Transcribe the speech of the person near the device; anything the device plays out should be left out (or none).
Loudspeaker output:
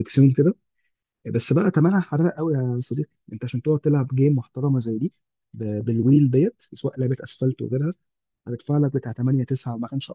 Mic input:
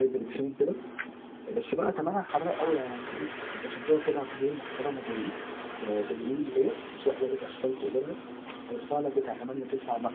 none